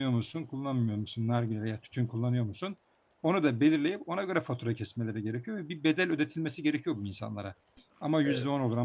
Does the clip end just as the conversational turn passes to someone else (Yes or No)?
No